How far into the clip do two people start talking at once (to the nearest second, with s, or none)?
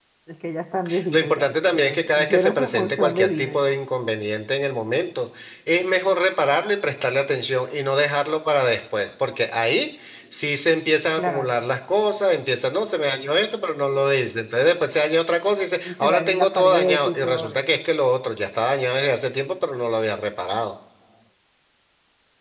1 s